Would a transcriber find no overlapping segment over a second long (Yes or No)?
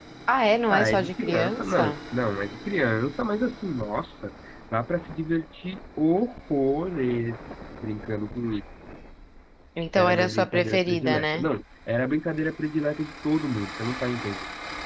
No